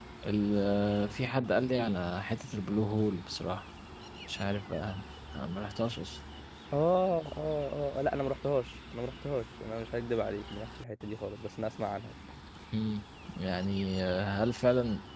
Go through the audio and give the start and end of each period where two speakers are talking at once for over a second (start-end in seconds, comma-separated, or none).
none